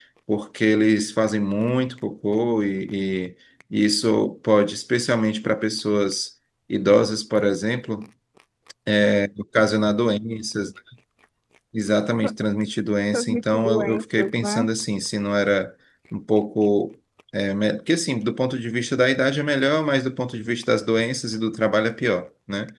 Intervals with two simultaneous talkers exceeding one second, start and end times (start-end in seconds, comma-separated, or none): 13.1-14.6